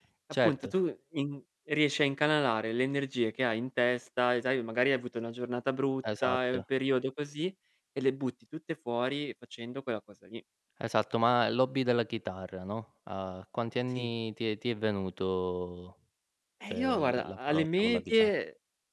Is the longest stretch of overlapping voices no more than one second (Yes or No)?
No